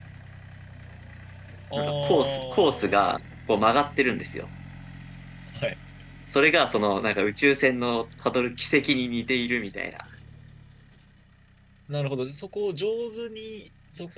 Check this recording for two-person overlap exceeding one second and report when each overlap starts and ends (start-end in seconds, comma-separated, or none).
1.8-3.1